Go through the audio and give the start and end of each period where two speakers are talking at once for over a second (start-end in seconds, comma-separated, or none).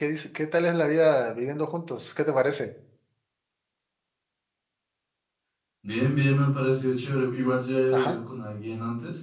none